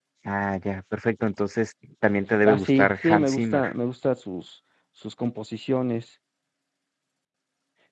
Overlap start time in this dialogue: 2.4 s

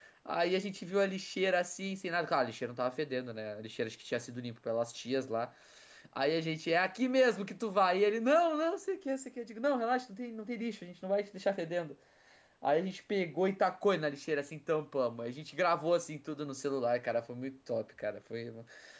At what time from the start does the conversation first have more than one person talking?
none

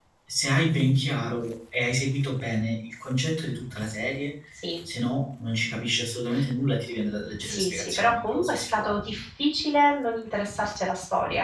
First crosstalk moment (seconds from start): 7.4 s

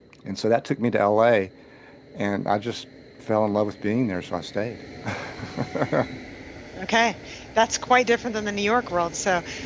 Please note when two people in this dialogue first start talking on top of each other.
none

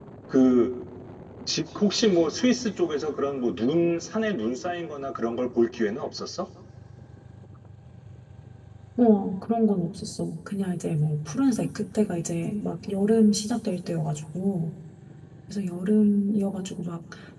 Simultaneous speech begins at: none

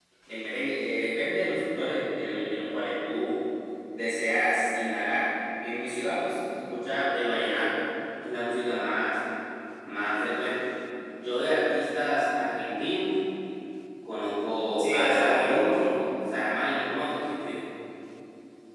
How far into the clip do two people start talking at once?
14.8 s

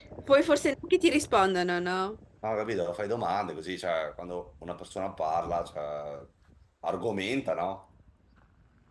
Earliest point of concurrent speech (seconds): none

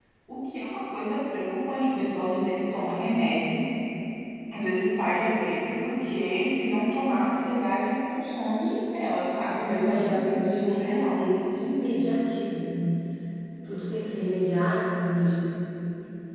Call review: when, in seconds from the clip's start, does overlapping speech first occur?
9.4 s

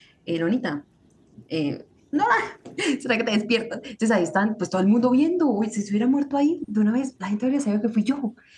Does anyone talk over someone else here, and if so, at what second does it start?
none

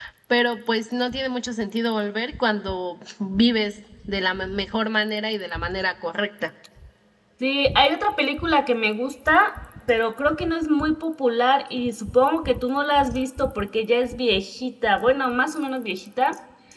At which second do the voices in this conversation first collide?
none

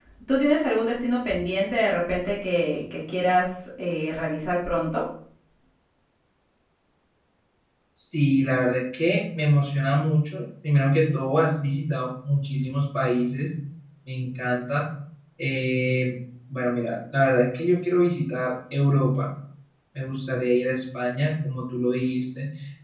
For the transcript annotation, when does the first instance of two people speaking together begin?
none

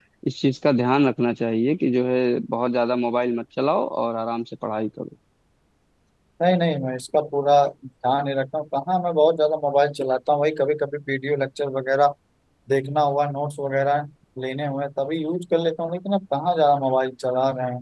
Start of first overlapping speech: none

